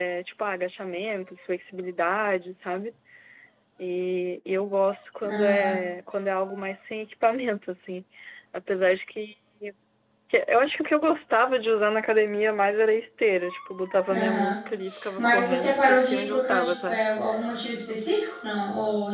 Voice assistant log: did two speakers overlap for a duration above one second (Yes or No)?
Yes